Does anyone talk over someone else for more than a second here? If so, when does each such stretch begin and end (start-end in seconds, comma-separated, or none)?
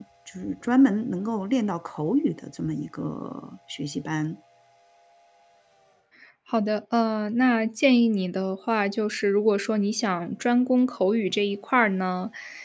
none